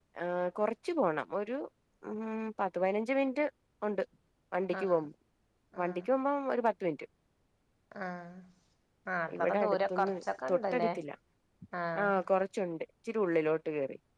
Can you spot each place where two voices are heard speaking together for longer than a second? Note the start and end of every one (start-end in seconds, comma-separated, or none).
9.4-10.9